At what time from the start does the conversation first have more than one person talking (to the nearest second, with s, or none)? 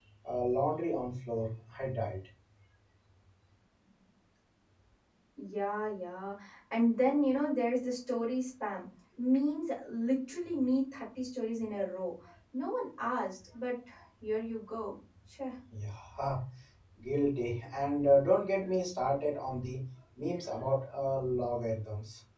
none